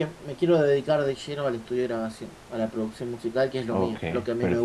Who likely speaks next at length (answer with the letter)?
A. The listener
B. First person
A